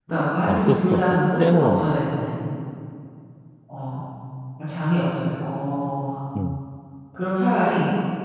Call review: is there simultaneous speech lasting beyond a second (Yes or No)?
Yes